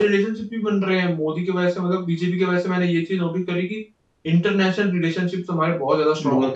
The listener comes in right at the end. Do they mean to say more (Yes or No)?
Yes